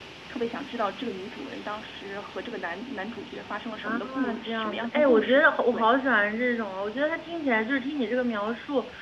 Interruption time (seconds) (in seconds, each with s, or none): 3.8 s